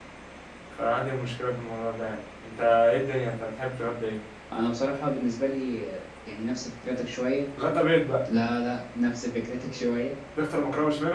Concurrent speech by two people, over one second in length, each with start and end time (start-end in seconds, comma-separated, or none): none